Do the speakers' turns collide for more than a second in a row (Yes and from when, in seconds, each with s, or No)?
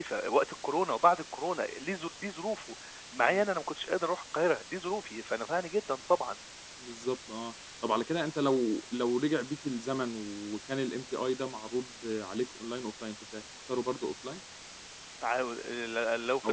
No